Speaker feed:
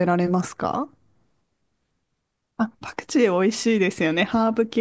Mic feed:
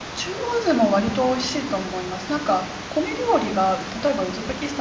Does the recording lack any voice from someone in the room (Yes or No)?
No